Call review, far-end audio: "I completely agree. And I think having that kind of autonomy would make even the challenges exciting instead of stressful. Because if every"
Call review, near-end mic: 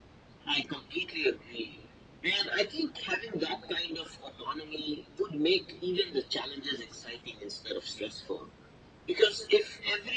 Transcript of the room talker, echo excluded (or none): none